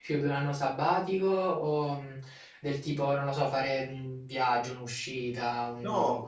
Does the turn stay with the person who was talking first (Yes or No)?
No